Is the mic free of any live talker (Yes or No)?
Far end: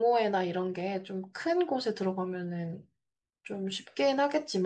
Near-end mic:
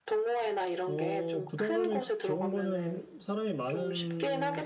No